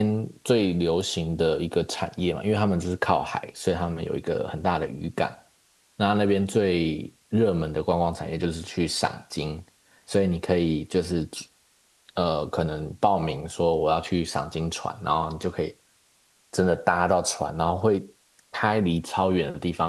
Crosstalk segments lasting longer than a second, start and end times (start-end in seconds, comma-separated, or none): none